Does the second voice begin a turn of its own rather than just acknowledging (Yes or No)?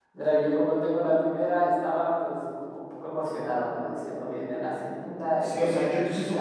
Yes